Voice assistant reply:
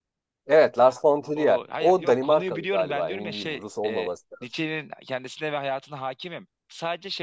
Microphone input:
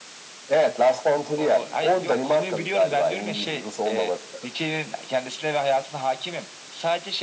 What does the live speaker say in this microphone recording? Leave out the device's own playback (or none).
none